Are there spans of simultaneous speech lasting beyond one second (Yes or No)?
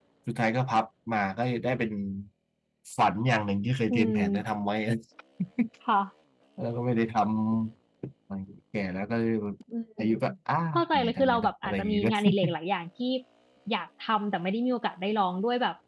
Yes